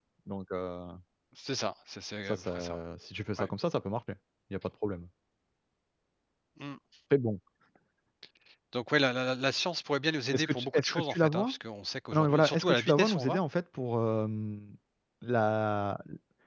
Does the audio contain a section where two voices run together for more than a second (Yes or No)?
Yes